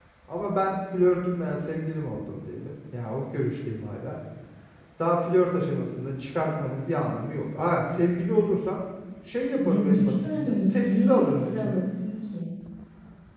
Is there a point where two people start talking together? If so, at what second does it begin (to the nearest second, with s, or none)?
10 s